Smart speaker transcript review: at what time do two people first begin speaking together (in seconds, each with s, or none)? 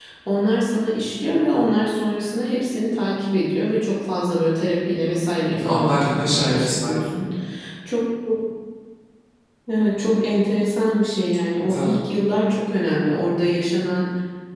5.7 s